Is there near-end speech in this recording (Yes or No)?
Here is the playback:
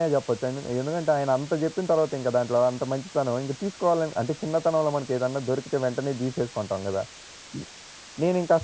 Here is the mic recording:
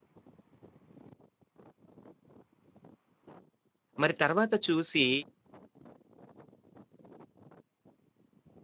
Yes